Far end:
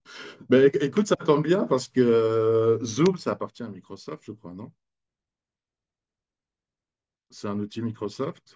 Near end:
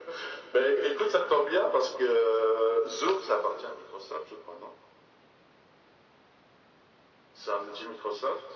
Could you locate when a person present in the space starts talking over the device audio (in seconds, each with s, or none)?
none